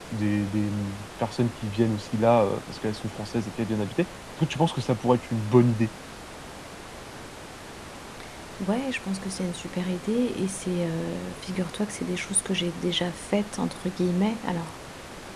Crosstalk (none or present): none